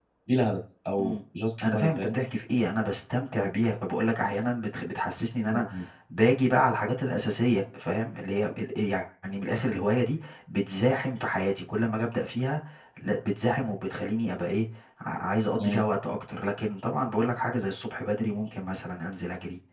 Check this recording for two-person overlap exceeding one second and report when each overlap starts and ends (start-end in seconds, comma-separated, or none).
none